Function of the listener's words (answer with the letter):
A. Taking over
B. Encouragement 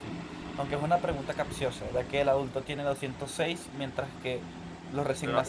A